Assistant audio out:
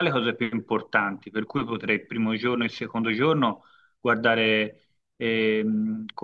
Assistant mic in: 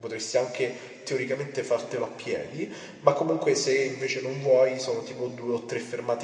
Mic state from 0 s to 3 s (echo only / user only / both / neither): user only